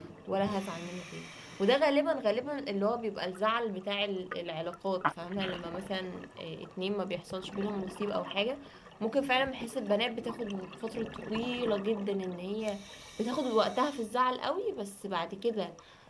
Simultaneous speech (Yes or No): No